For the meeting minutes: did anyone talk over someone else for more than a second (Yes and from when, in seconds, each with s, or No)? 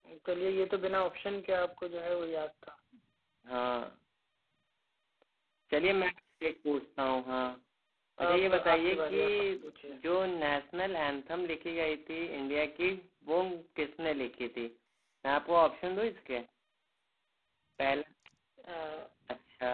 Yes, from 8.3 s